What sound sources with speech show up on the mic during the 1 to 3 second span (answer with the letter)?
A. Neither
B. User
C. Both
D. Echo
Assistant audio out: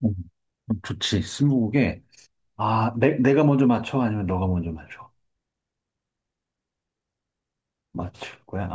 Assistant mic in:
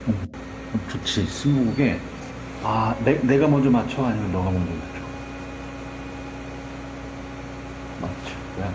D